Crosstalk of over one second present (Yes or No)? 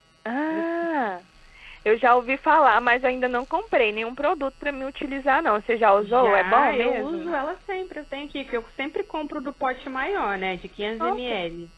Yes